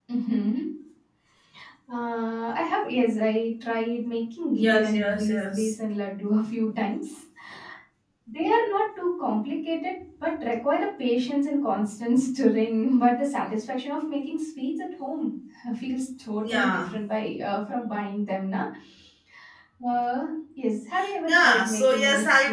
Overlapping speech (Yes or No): Yes